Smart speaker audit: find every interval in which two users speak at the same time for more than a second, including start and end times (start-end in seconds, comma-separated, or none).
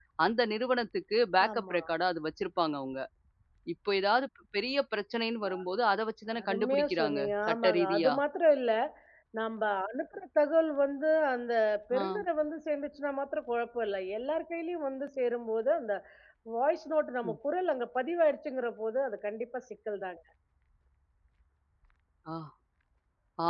6.4-8.1